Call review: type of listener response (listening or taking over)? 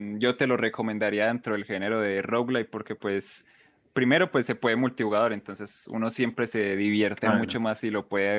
listening